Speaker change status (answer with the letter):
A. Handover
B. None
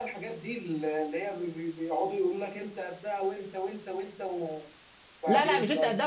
A